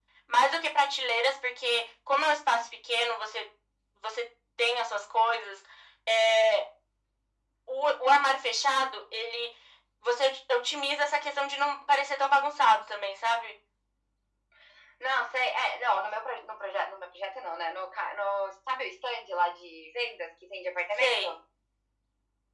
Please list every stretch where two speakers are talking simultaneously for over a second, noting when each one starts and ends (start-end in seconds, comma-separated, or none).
none